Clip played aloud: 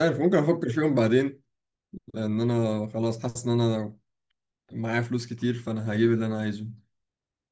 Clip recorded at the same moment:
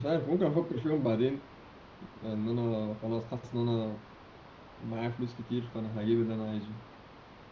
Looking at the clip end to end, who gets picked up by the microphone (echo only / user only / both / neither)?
echo only